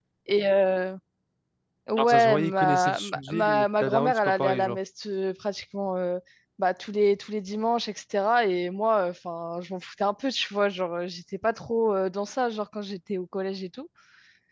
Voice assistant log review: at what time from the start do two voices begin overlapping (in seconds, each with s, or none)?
2.0 s